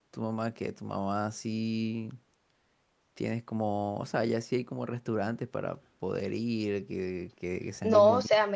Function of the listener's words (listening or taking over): taking over